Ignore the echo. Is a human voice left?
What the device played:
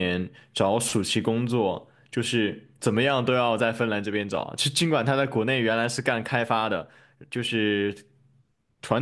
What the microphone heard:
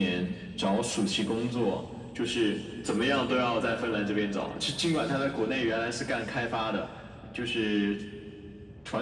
No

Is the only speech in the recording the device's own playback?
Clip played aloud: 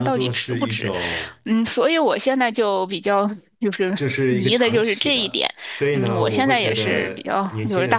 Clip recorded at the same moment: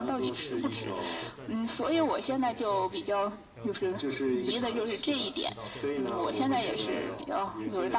No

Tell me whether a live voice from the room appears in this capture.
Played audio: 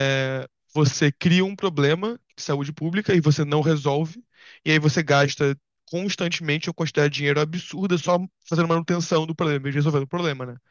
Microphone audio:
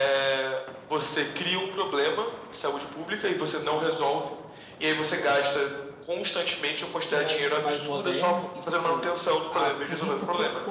Yes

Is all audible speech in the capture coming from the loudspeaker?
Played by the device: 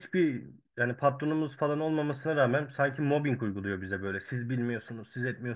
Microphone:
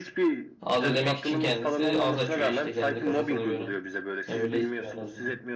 No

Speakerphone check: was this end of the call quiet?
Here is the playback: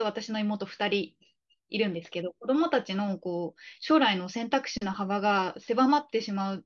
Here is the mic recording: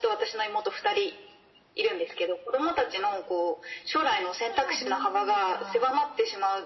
No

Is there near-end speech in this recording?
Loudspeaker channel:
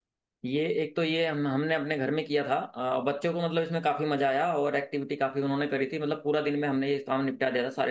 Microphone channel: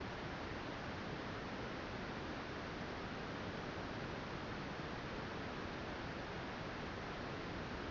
No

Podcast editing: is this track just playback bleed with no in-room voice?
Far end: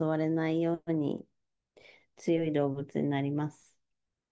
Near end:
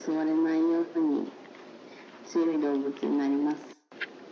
Yes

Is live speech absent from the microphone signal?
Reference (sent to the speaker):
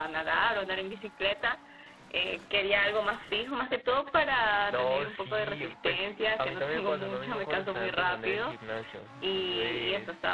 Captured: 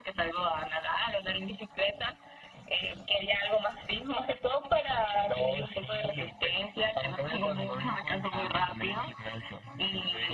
Yes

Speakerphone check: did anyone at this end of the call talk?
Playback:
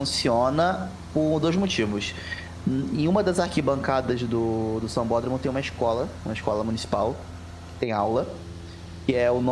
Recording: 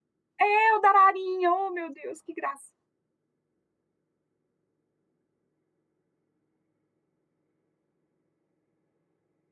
Yes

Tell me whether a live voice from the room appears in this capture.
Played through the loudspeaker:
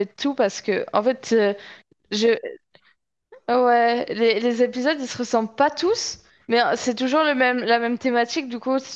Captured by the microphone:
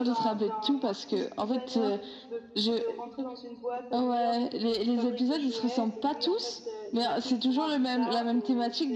Yes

